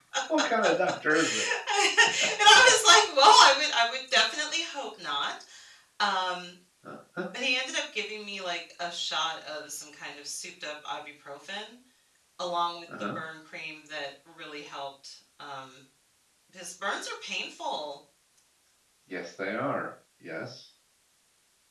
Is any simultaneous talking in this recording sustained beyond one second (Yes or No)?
No